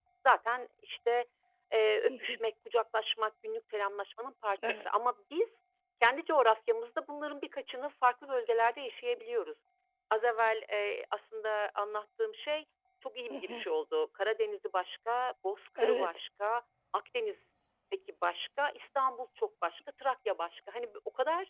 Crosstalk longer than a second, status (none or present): none